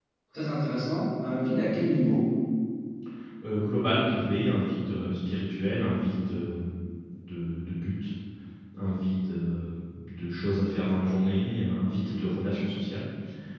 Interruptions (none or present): none